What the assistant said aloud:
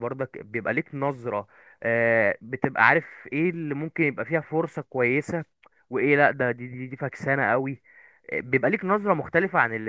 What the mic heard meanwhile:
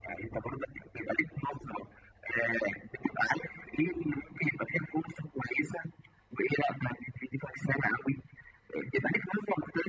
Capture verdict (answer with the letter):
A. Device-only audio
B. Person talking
A